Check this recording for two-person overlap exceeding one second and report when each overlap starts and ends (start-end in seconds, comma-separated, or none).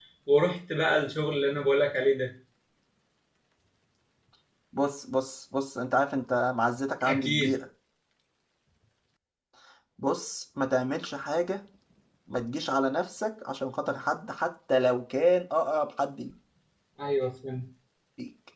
none